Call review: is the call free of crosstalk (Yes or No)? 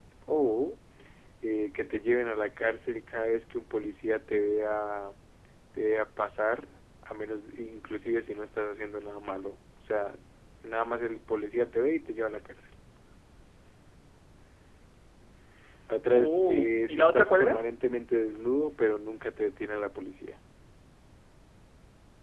No